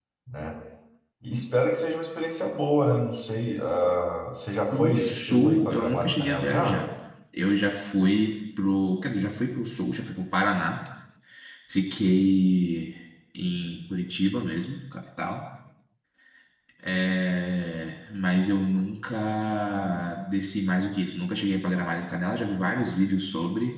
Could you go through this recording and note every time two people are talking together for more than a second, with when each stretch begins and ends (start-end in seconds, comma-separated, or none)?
4.7-6.8